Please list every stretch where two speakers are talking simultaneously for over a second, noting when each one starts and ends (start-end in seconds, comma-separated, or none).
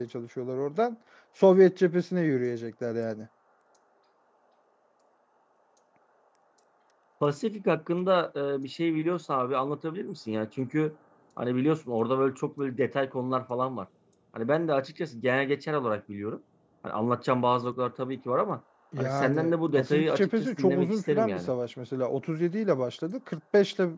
19.0-21.5